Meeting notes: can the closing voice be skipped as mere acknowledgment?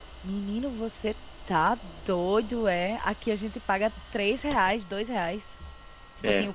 Yes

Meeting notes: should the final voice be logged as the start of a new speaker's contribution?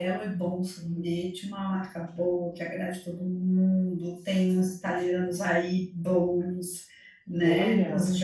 No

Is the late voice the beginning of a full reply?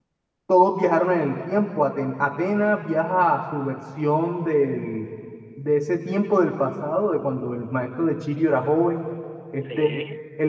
No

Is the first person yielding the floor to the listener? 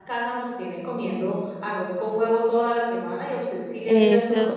Yes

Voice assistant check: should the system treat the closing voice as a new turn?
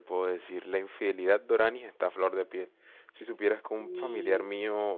No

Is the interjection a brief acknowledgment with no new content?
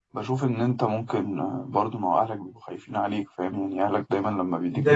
No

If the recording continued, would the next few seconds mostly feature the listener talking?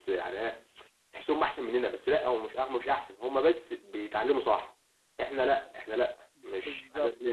Yes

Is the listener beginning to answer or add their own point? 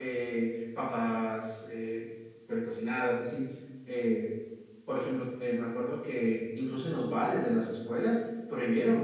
No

